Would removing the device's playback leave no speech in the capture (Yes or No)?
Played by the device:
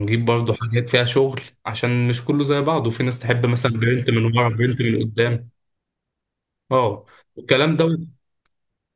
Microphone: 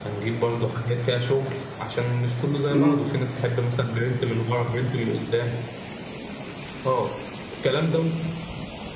No